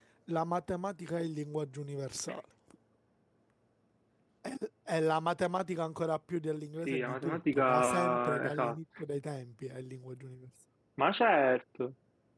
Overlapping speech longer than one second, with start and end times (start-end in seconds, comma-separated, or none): 6.8-8.7